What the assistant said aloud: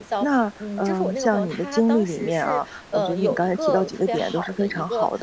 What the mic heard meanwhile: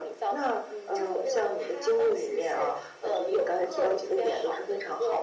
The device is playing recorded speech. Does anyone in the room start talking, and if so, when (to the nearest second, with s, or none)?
none